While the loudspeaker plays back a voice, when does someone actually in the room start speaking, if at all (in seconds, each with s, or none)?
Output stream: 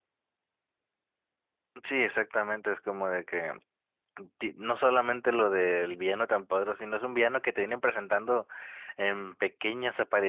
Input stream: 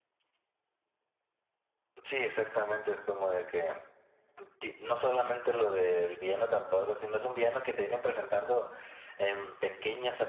none